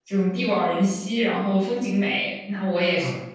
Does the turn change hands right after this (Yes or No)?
No